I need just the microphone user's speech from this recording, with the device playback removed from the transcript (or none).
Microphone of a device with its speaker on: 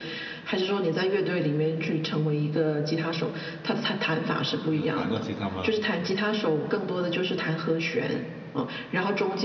你有弹过吉他吗？